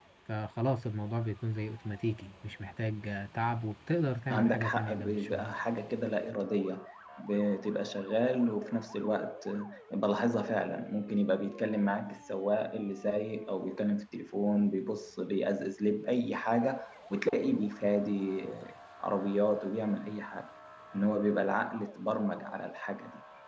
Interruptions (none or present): present